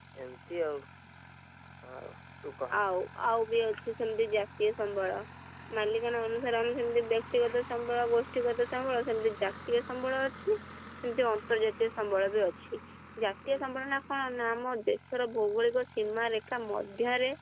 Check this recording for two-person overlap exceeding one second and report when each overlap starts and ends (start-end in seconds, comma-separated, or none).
none